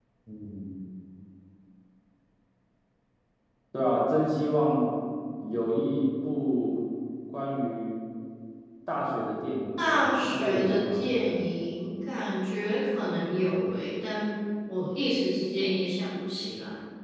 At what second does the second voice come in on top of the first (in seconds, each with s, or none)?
9.8 s